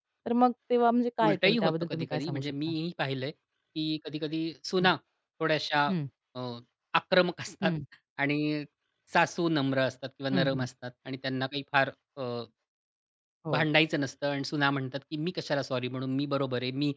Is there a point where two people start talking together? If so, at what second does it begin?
1.2 s

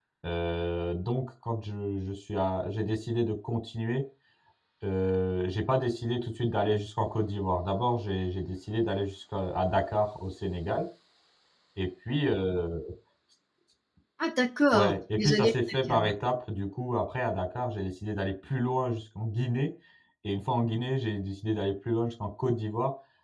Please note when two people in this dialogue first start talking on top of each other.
14.7 s

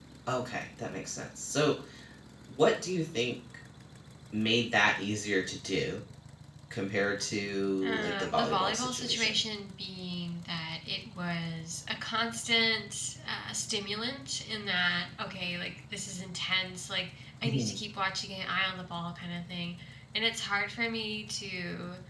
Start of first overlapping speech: 7.8 s

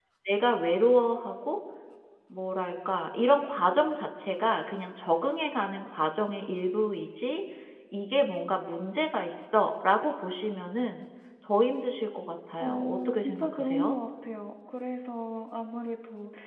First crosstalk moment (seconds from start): 12.6 s

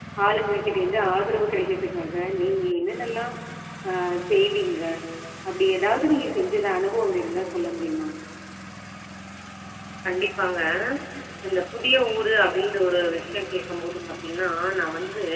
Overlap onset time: none

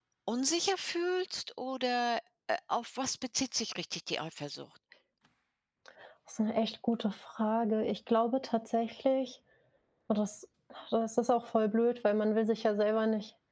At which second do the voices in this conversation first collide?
none

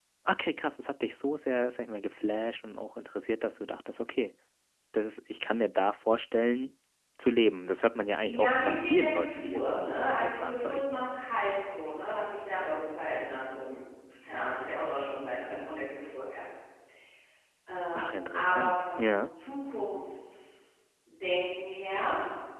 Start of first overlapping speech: 8.2 s

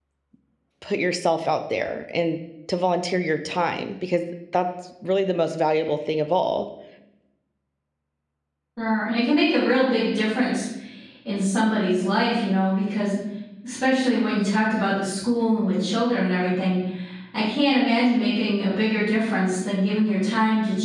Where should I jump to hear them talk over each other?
none

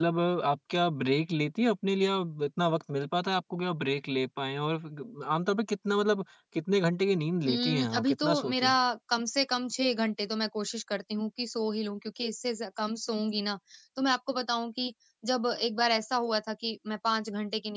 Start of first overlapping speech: 7.4 s

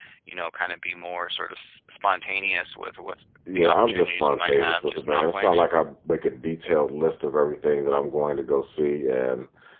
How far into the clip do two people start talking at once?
3.5 s

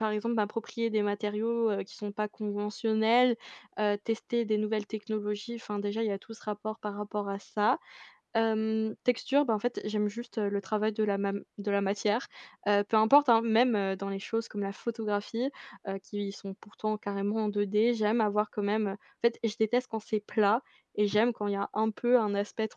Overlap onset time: none

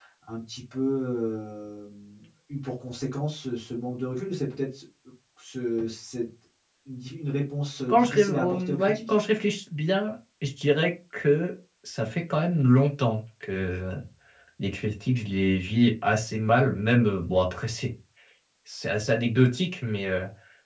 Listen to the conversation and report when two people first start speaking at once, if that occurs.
7.9 s

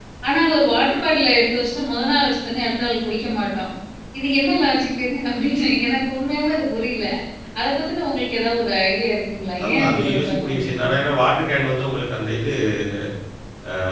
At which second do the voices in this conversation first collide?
9.6 s

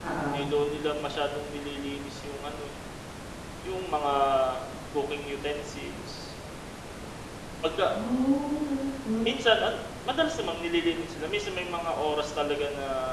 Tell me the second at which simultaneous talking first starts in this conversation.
none

